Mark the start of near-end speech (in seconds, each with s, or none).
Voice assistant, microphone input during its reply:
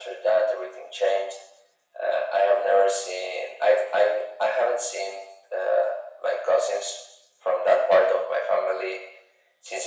none